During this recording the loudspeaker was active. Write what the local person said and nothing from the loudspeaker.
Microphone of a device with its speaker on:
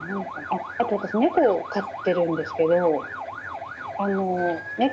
none

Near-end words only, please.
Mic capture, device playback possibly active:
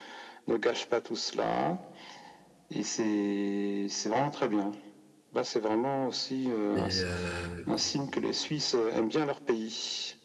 Et euh,

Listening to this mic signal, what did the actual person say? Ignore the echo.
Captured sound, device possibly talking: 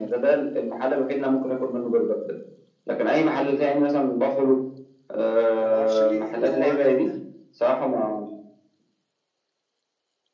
يعني ما اعرفش ليه ايه اللي هو عمله ده

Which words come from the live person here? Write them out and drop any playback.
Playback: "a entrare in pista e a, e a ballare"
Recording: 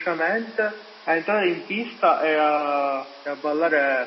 none

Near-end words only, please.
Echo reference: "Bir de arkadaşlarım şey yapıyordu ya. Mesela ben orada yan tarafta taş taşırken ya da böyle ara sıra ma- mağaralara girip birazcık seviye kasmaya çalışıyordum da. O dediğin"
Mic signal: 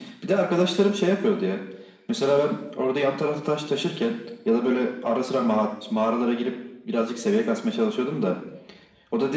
none

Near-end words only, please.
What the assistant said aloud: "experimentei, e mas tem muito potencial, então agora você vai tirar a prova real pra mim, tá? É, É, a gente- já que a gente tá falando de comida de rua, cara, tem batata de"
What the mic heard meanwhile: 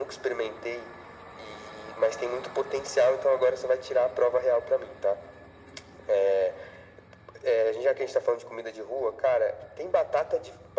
none

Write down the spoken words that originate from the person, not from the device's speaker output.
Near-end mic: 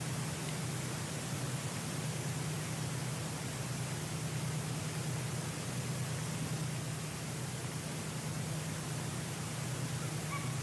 none

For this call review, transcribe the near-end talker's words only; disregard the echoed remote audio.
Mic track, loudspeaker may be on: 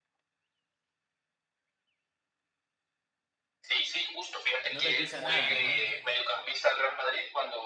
No les dice nada, ajá.

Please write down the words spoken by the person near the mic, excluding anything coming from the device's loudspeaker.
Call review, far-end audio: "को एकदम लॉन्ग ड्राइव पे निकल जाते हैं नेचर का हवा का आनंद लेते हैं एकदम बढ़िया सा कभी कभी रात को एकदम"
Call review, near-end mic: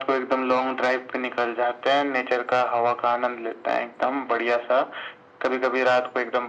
none

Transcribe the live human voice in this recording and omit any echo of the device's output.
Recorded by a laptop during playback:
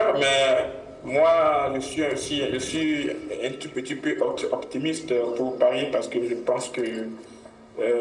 none

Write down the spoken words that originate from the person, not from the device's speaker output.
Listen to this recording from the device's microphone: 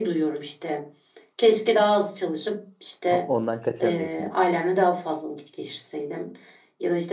O- Ondan kaçamıyorsunuz.

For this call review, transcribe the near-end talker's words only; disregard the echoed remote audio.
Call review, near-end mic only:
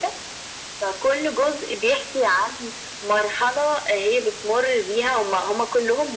none

